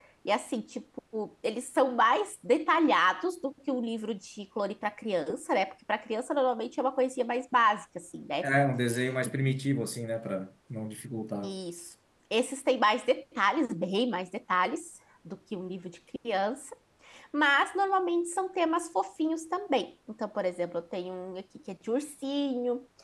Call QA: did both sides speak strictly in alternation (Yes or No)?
Yes